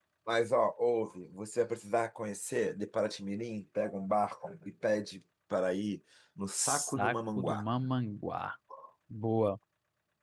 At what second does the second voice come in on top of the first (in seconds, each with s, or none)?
6.5 s